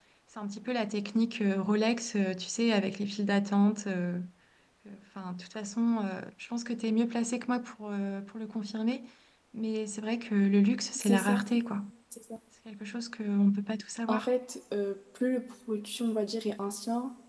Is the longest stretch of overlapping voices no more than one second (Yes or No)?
Yes